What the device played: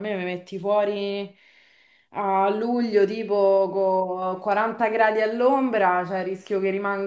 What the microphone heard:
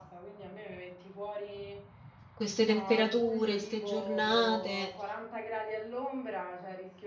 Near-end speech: present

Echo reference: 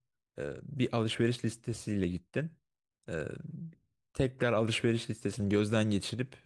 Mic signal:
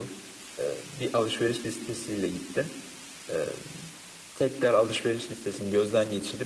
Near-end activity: none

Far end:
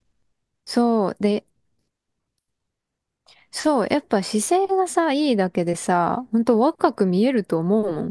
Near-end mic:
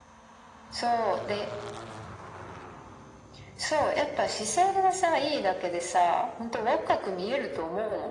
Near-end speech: none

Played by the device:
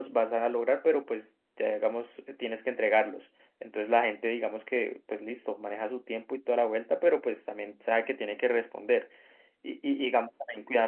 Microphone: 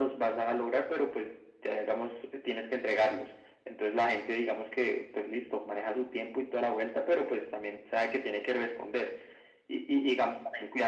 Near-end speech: none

